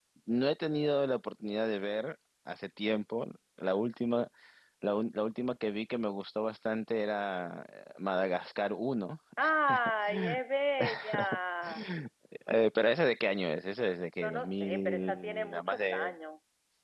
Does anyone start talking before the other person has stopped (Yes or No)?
Yes